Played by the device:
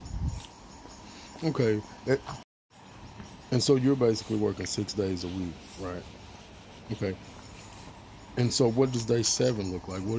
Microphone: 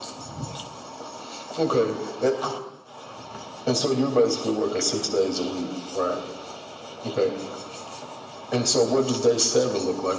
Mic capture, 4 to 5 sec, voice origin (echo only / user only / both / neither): echo only